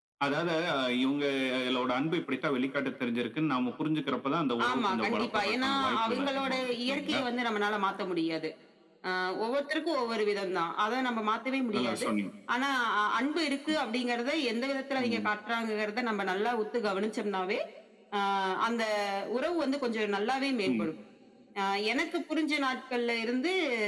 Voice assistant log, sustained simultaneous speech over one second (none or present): present